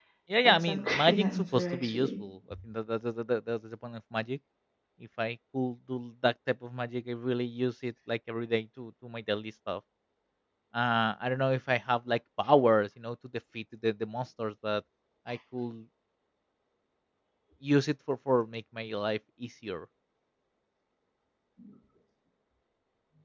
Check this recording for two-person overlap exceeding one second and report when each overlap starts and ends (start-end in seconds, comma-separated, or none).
0.6-2.1